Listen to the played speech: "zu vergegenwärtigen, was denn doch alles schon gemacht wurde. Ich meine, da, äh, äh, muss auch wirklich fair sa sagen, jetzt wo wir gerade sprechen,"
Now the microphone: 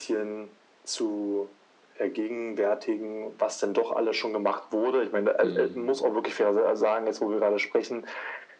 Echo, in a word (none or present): present